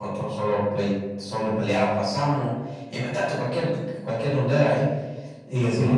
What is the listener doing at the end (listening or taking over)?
listening